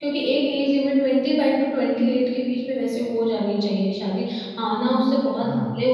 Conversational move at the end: listening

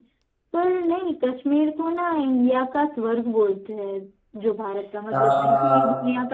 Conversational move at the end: listening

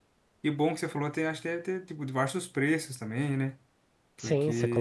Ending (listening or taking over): taking over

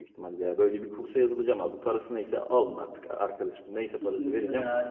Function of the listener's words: taking over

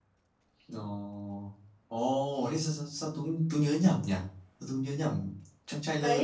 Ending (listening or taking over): taking over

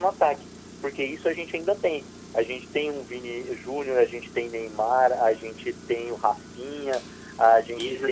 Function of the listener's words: taking over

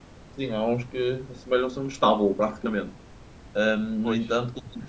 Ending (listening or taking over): listening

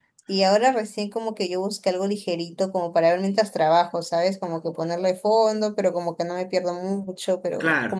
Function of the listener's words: listening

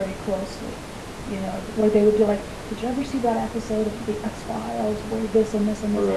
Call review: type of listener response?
listening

